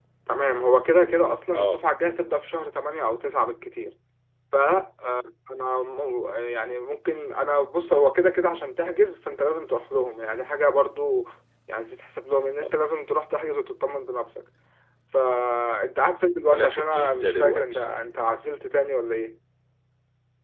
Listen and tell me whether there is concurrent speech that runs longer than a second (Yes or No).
Yes